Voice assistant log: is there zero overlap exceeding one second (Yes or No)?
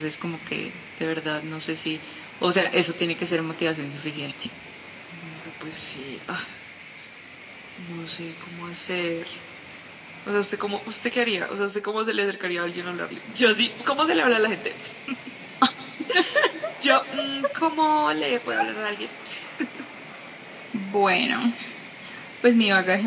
Yes